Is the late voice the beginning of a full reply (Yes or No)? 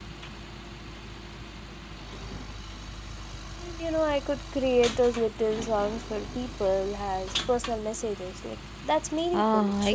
Yes